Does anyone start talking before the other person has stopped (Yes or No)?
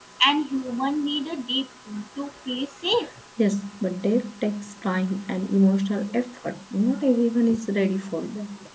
No